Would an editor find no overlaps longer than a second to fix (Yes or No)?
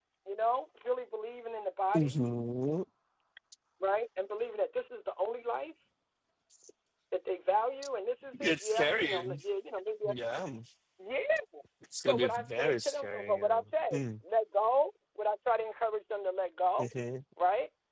No